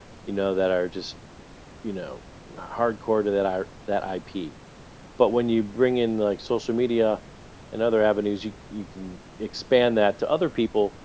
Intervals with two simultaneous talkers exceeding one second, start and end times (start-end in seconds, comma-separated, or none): none